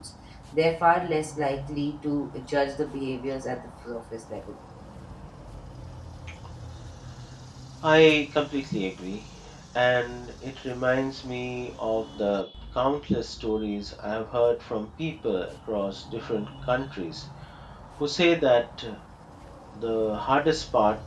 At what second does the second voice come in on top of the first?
none

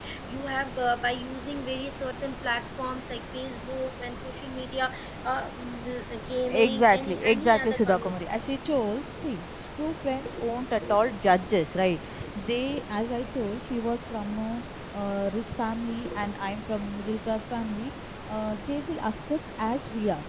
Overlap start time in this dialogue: 6.5 s

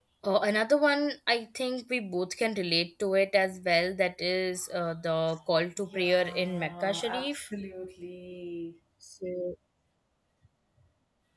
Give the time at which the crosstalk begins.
5.9 s

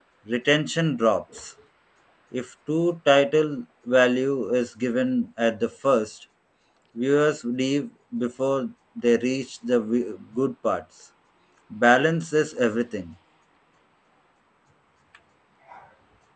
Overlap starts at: none

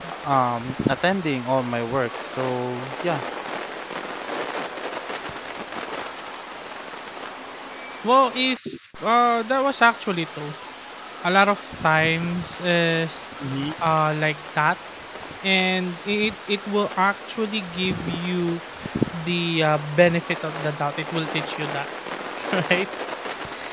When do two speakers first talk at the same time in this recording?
none

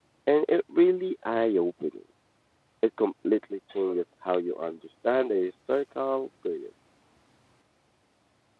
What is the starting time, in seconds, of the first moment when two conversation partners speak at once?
none

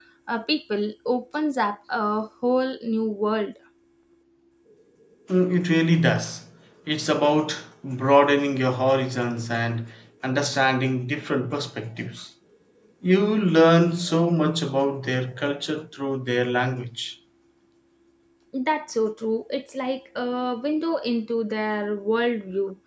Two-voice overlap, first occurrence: none

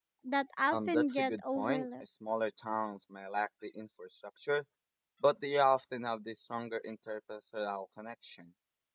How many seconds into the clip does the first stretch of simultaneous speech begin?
0.7 s

